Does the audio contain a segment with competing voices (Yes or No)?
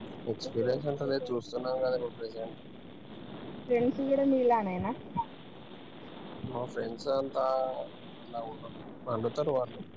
Yes